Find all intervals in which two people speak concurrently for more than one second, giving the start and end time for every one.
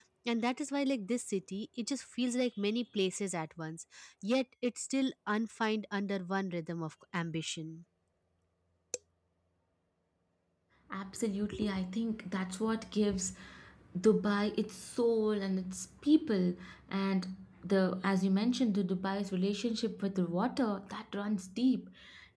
none

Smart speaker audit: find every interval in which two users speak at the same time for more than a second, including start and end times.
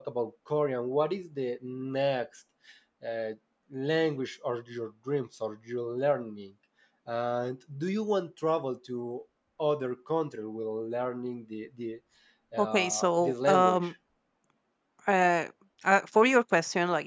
12.6-13.9

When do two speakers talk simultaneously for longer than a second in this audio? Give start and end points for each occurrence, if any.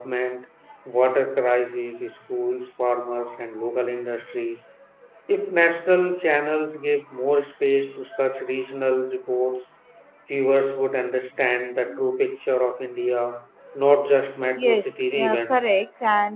14.6-15.8

